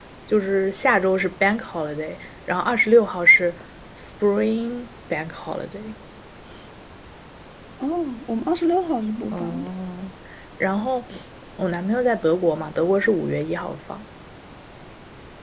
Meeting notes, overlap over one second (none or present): none